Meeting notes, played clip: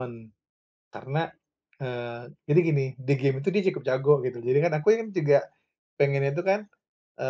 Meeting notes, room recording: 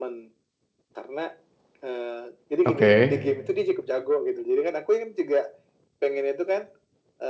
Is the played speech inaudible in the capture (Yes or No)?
No